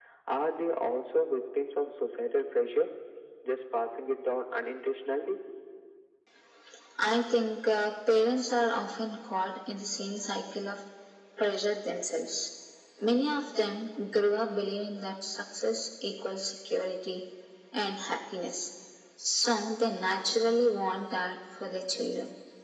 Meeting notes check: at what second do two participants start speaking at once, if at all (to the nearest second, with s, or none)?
none